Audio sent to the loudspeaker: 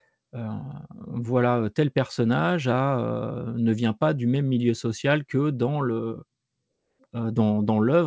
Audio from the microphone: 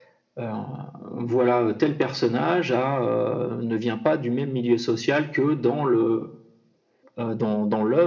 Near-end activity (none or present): none